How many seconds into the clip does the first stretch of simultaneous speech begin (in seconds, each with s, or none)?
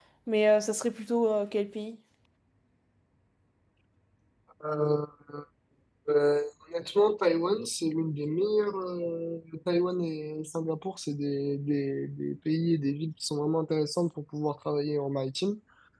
none